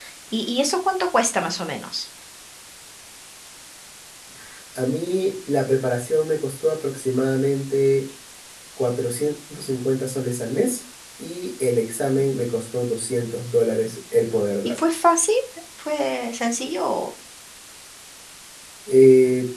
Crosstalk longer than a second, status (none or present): none